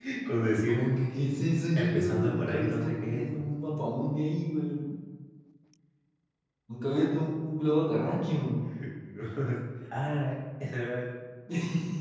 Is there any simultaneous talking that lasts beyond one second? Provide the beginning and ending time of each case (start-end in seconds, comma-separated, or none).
1.8-3.2